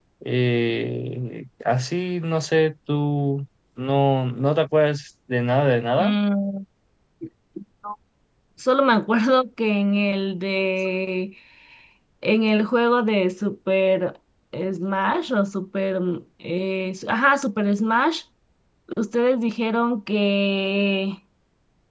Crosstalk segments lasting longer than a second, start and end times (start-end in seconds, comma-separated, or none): none